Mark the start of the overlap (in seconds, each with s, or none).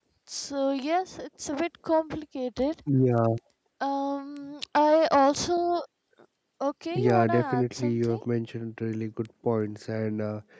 7.0 s